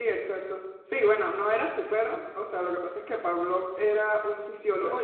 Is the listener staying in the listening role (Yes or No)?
Yes